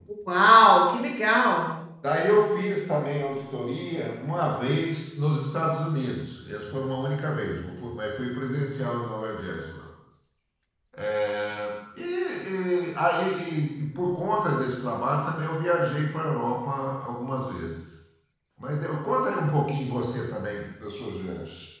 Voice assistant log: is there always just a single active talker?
Yes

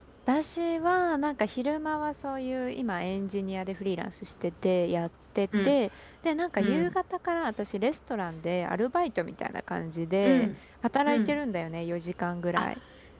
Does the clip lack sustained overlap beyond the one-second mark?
Yes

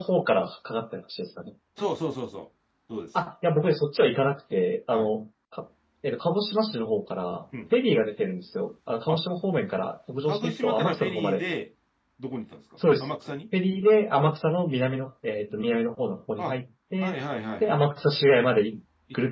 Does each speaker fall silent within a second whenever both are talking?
No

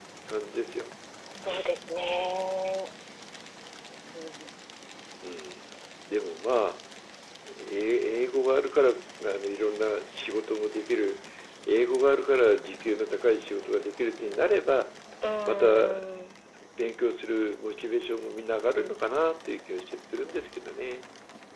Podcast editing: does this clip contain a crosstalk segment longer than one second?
No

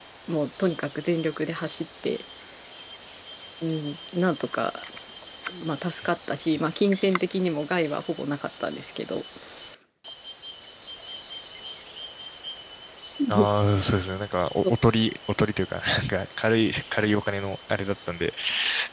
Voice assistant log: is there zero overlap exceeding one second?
Yes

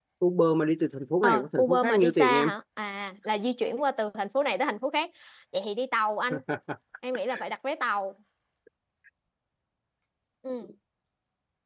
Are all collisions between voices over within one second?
No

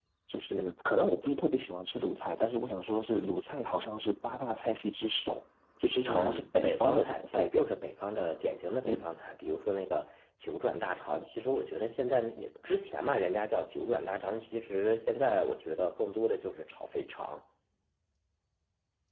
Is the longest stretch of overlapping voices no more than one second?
No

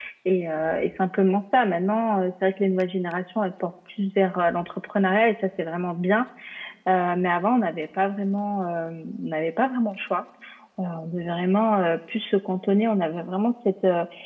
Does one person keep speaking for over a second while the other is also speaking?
No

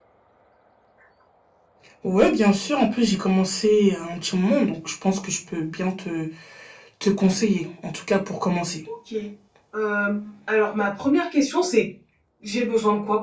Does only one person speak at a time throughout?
Yes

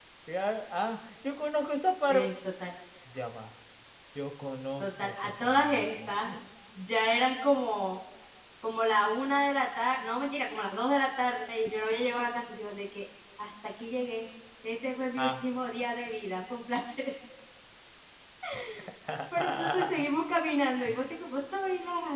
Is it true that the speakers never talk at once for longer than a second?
No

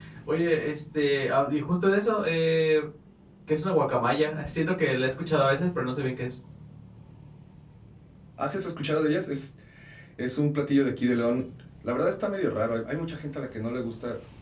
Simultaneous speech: No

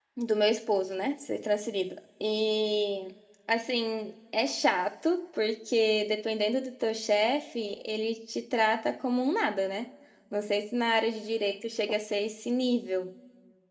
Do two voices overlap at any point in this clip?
No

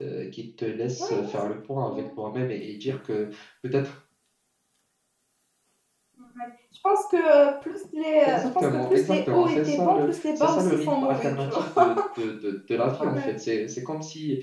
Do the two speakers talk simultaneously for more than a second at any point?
Yes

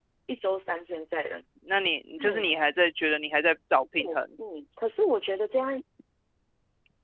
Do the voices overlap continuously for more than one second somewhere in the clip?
No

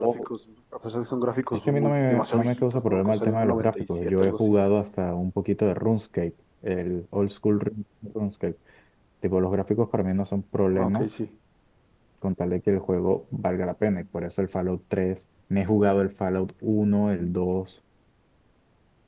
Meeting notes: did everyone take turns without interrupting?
No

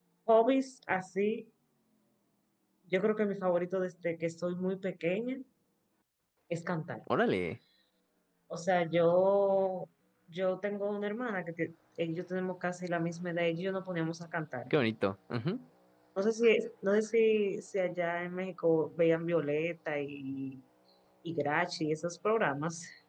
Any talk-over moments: No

